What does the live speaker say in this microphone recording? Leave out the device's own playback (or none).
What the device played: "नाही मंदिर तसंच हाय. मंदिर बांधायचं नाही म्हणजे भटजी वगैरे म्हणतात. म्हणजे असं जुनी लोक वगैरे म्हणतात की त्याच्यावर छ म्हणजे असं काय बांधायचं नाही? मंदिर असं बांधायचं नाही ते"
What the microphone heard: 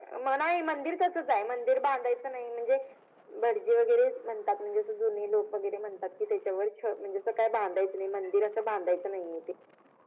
none